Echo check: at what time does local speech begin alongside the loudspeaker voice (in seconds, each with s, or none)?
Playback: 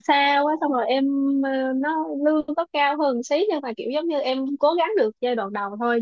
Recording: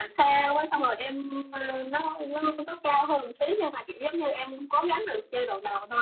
none